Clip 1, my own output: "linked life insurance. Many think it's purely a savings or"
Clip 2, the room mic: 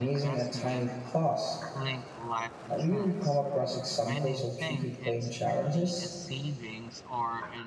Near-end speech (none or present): present